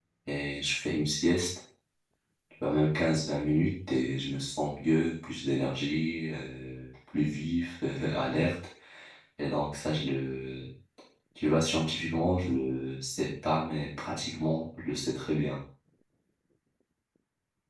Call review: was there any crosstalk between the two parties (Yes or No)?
No